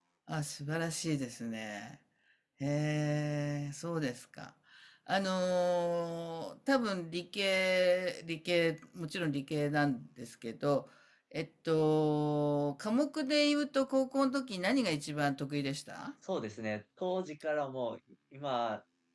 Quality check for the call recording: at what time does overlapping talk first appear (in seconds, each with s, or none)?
none